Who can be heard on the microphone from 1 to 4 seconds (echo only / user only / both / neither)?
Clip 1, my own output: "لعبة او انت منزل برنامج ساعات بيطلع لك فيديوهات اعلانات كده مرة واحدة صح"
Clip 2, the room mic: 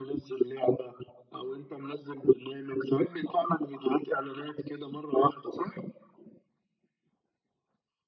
echo only